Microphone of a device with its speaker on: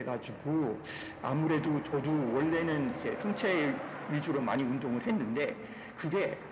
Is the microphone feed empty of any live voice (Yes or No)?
Yes